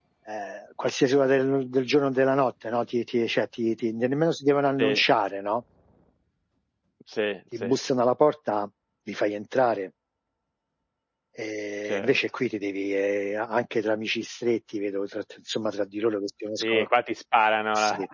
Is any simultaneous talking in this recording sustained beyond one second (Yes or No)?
No